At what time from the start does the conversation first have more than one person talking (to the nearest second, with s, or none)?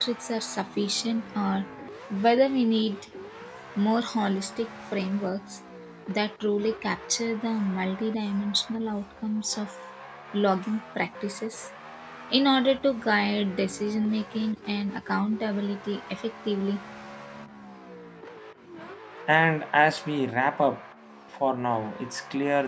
none